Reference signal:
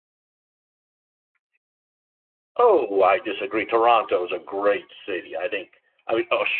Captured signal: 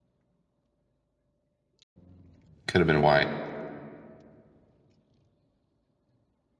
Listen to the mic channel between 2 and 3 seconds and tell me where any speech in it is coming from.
user only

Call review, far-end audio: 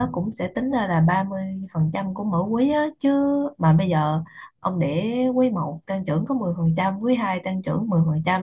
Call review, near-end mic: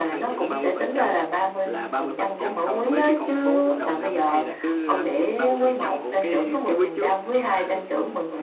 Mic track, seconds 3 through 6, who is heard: both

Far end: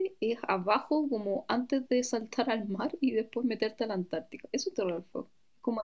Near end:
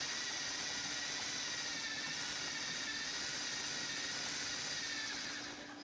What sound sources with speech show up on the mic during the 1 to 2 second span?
neither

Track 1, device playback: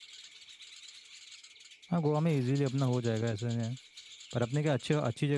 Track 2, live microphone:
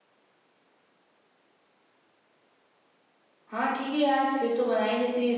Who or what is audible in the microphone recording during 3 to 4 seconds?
user only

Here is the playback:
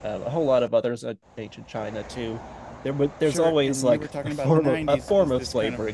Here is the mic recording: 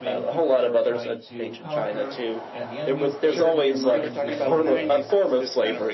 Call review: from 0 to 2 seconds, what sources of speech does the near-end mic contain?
both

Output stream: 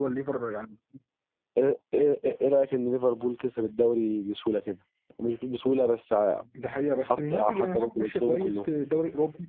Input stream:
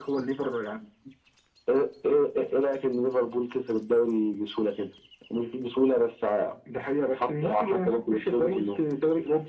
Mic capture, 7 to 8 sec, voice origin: echo only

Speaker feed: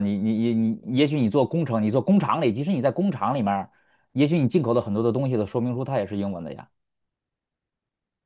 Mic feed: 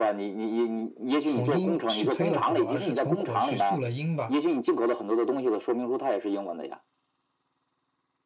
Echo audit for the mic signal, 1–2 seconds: both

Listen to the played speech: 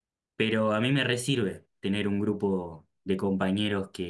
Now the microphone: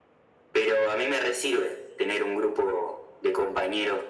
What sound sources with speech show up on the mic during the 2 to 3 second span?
echo only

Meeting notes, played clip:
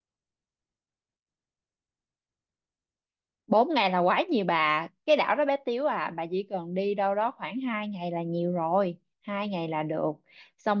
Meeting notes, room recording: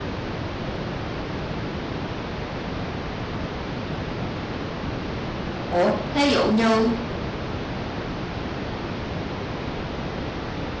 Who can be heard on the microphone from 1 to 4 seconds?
neither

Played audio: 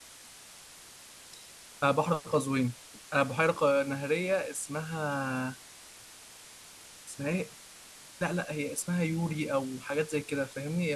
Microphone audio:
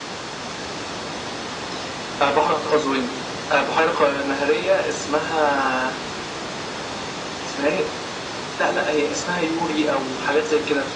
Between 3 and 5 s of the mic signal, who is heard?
echo only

